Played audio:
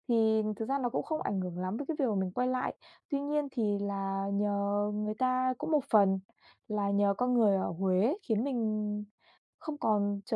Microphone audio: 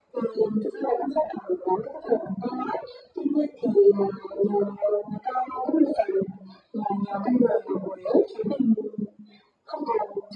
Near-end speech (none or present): none